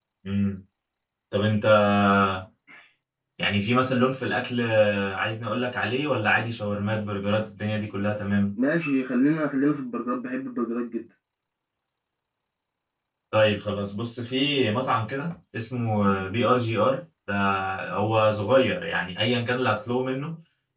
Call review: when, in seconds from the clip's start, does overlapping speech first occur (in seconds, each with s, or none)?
none